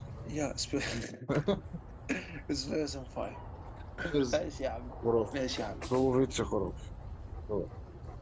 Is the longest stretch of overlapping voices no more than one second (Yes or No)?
Yes